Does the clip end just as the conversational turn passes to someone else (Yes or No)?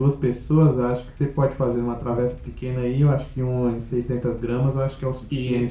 Yes